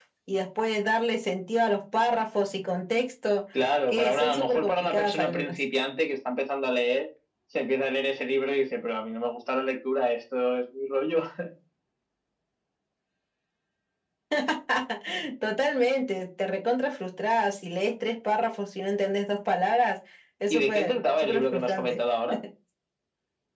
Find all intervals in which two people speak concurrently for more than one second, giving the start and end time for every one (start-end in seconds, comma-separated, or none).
3.9-5.6, 20.5-22.0